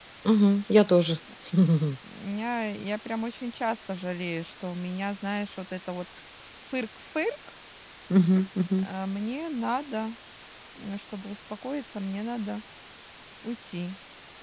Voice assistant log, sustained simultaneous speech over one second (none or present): none